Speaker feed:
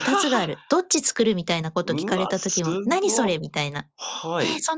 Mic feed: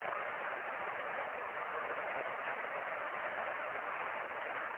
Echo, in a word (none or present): none